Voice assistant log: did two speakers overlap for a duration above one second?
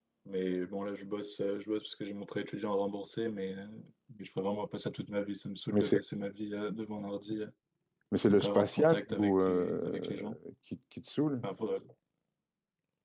Yes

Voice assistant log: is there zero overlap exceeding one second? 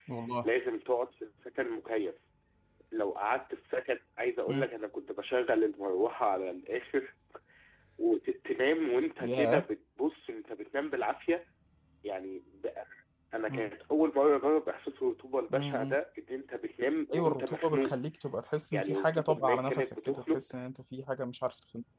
No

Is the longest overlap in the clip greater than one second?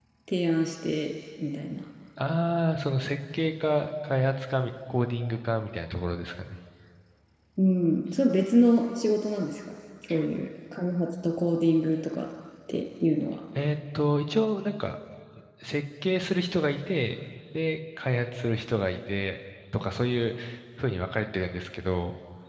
No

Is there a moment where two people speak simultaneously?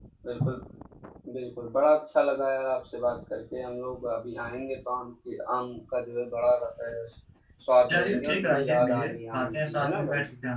Yes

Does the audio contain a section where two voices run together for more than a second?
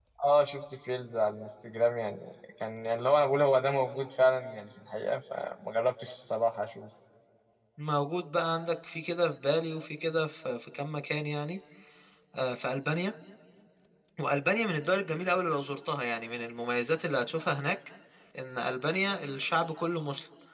No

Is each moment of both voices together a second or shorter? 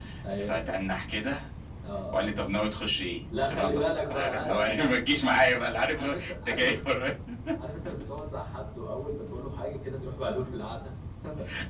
No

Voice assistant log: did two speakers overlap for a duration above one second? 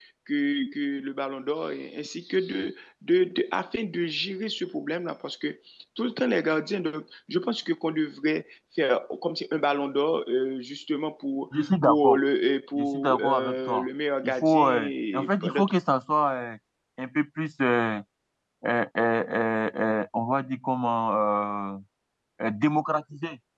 Yes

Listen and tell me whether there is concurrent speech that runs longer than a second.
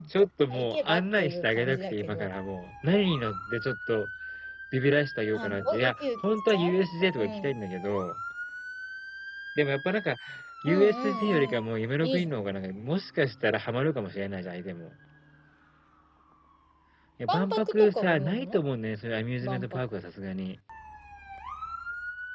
Yes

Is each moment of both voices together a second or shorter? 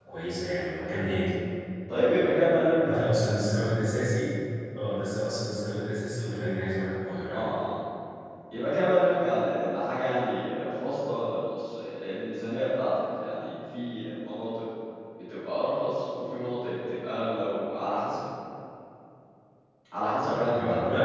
Yes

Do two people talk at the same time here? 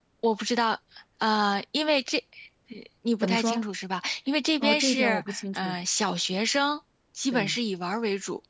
Yes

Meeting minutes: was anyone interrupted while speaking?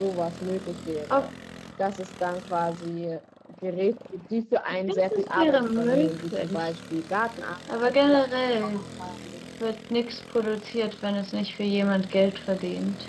Yes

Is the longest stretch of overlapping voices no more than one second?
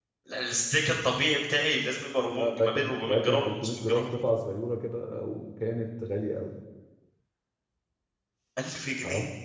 No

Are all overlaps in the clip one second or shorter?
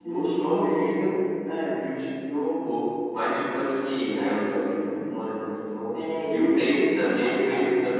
No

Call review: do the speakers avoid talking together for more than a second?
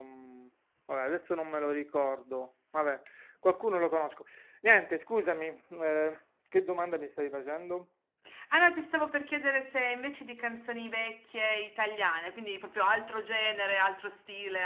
Yes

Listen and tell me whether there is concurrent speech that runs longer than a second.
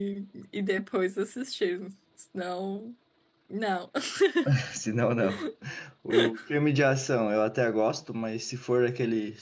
No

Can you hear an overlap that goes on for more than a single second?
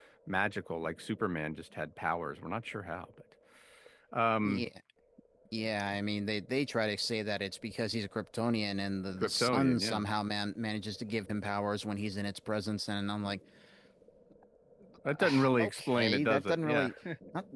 Yes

